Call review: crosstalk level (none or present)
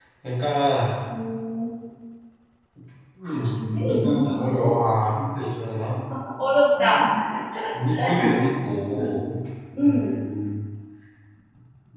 present